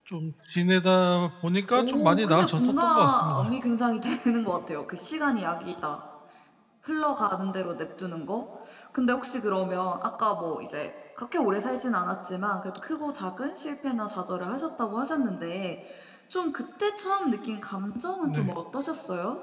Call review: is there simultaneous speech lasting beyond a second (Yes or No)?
Yes